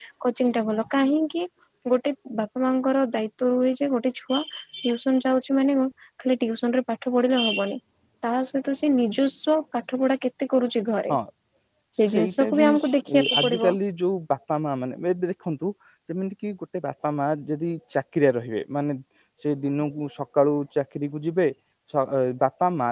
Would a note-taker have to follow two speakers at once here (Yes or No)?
Yes